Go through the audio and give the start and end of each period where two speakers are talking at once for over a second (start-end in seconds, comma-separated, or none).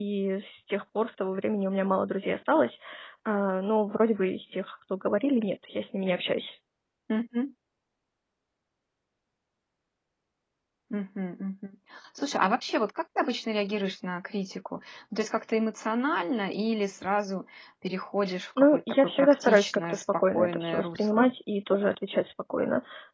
18.6-21.3